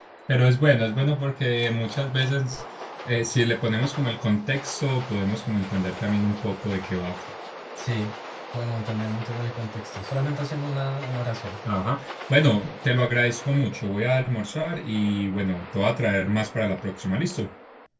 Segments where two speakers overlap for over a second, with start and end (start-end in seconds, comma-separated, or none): none